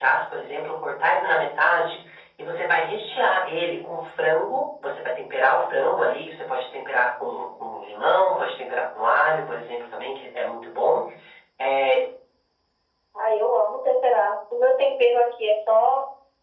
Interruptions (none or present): none